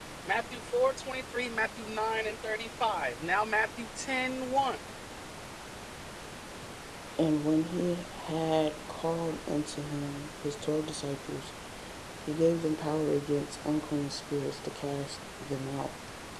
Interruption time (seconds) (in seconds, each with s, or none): none